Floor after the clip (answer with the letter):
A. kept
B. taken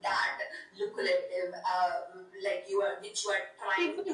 B